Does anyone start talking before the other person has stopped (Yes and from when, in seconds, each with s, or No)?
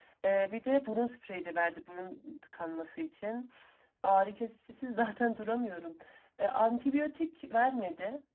No